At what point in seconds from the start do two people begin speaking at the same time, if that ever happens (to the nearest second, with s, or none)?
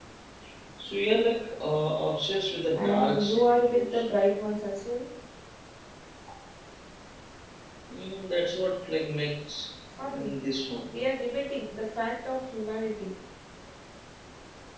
3 s